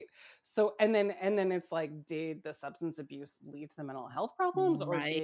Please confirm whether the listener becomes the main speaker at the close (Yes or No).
No